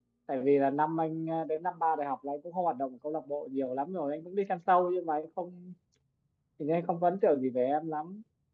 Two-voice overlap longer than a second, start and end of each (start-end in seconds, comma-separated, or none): none